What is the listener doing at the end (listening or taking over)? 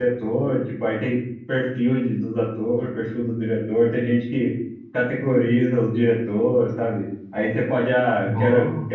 listening